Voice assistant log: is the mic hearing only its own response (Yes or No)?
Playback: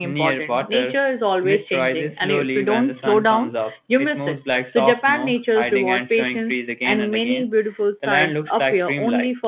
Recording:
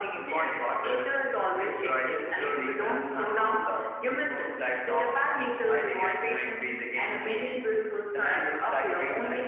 Yes